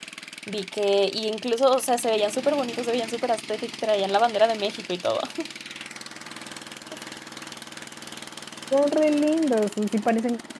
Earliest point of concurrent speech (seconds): none

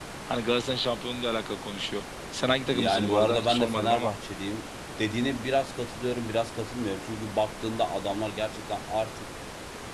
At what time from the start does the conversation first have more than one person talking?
2.7 s

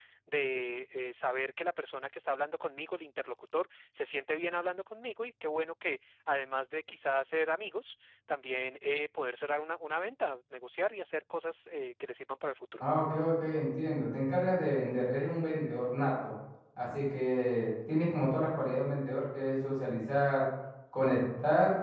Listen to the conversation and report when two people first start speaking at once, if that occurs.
none

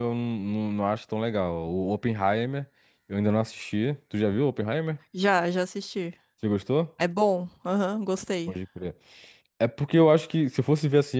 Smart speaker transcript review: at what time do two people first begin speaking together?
none

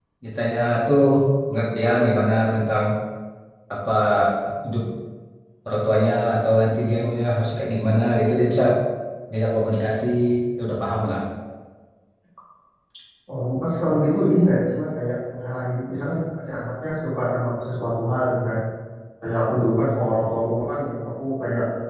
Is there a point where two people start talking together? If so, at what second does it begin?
none

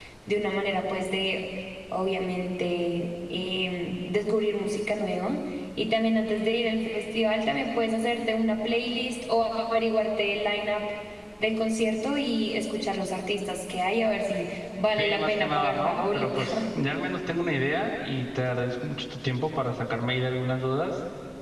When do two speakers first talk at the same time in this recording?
15.0 s

